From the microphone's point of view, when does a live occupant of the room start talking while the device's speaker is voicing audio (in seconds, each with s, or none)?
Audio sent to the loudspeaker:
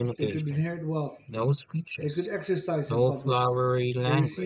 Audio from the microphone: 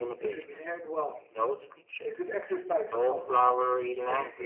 none